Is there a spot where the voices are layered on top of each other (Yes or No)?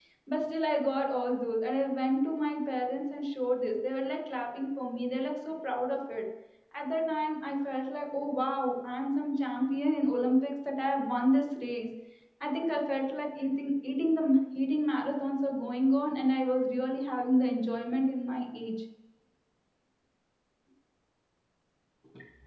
No